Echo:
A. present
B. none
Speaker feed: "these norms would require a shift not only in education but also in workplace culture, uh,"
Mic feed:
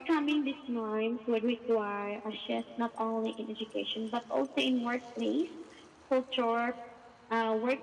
A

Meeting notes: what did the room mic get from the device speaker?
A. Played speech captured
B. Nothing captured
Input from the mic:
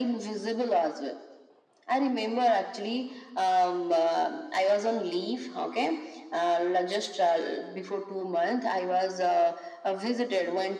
A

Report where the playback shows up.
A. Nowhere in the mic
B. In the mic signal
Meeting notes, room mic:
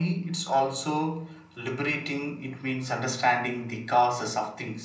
B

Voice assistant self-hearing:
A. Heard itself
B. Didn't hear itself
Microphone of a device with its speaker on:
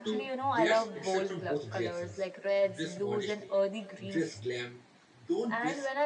A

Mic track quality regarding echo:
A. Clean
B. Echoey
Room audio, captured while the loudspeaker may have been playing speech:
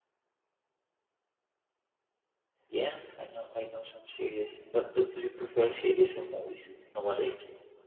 A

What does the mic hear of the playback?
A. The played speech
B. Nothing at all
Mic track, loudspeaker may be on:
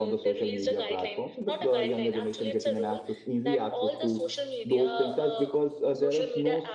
A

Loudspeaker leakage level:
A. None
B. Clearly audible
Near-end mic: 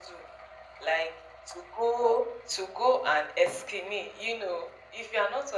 B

